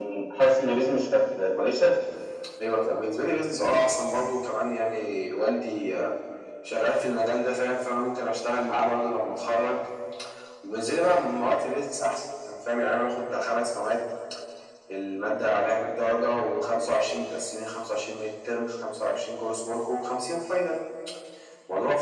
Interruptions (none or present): none